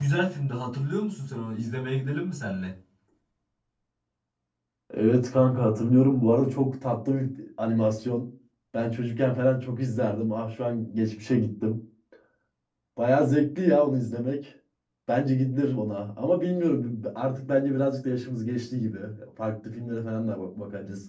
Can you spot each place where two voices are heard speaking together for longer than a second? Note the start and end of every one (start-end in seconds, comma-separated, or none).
none